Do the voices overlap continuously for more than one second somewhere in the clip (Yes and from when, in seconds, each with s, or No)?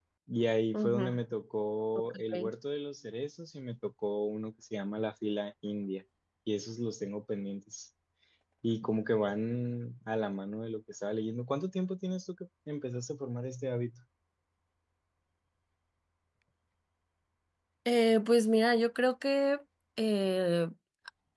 No